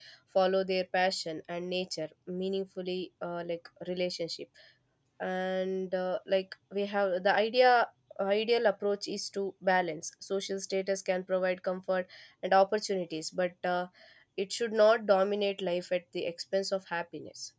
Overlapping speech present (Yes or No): No